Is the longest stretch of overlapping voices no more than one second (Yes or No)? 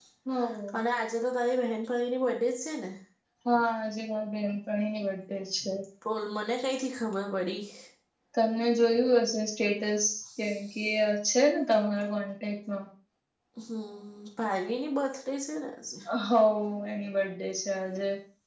Yes